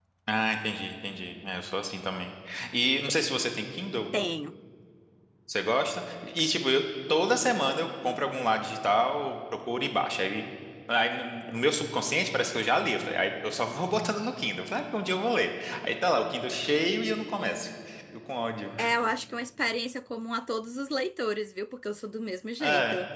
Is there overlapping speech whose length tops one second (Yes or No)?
No